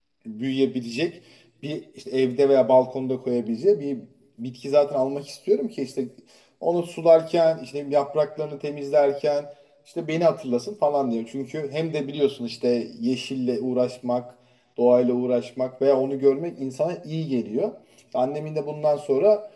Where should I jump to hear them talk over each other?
none

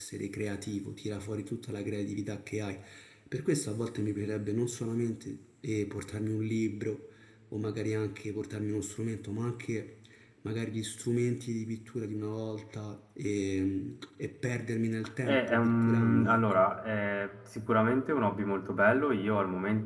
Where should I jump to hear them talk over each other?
15.3 s

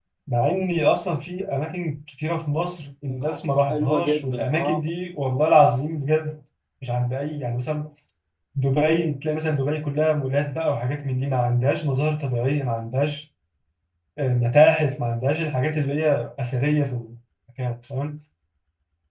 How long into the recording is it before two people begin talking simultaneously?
3.0 s

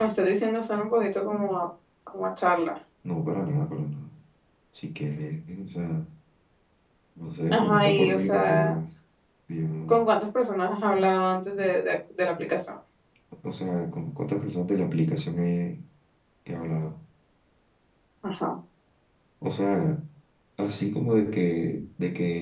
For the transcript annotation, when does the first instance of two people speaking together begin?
7.5 s

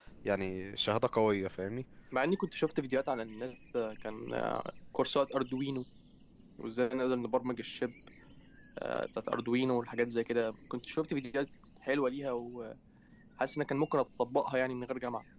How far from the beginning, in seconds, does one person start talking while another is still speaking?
none

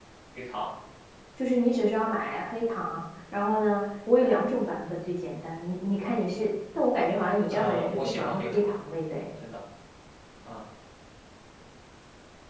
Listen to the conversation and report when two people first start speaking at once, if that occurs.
7.5 s

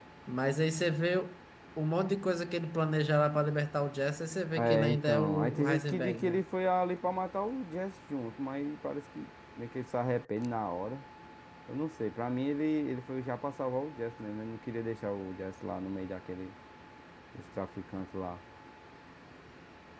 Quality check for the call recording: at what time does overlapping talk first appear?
4.6 s

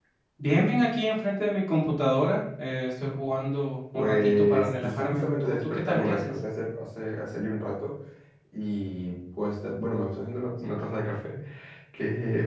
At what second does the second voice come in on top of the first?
3.9 s

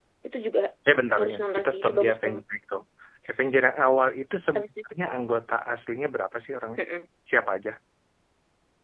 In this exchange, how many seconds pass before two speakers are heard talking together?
1.2 s

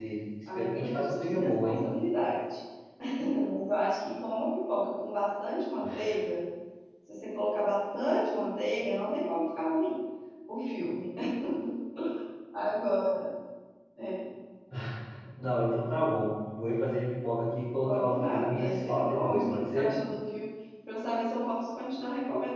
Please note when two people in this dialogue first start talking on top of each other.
0.5 s

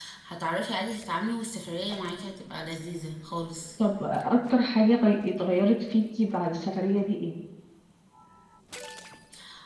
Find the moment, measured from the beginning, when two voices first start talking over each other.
none

